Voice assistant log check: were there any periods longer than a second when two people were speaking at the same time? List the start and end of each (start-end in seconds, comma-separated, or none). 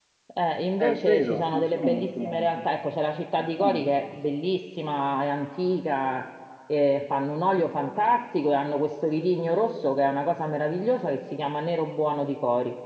0.8-2.7